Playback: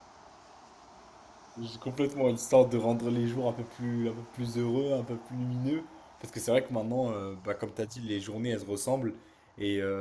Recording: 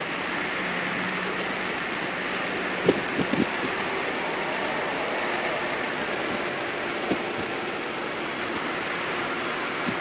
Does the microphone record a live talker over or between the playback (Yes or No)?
No